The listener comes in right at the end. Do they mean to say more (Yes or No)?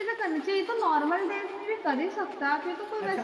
Yes